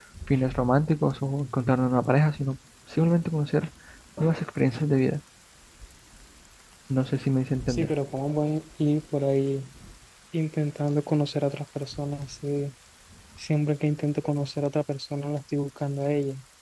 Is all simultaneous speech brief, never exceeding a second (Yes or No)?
Yes